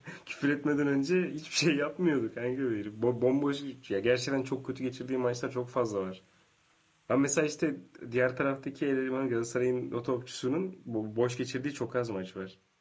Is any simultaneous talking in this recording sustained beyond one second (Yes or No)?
No